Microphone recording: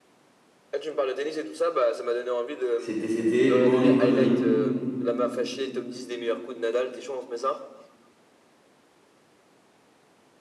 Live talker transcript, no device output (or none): c'était, c'était Maureen Connolly.